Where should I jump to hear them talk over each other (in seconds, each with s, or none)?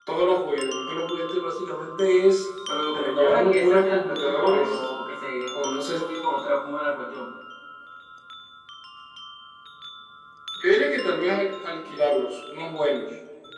2.9 s